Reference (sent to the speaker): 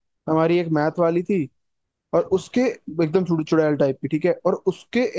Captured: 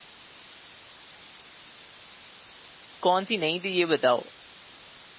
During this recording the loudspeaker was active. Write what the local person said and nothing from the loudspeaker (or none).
कौन सी नहीं थी ये बताओ